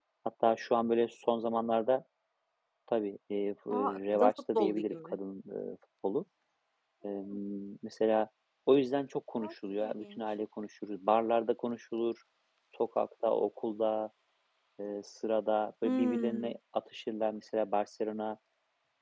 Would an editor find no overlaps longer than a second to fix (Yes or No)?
No